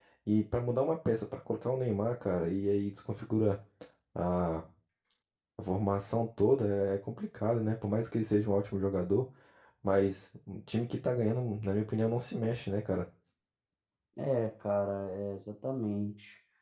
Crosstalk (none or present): none